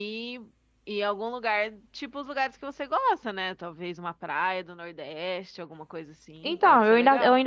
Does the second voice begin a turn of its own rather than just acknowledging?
Yes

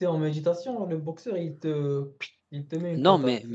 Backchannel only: No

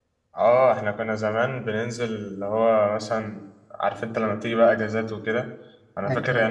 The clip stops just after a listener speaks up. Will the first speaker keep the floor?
Yes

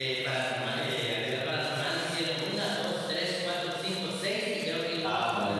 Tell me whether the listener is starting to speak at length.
Yes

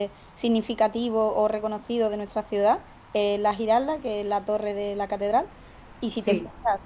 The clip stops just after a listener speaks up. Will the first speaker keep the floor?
Yes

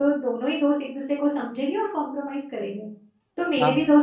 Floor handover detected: No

